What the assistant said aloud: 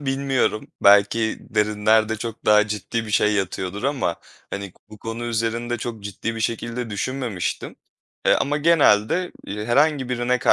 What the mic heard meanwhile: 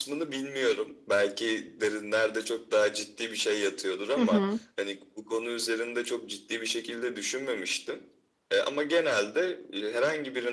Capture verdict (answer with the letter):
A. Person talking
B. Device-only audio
A